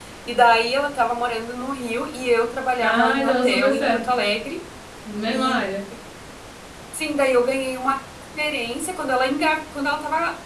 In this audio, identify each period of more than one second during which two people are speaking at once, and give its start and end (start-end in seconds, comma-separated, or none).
2.8-4.1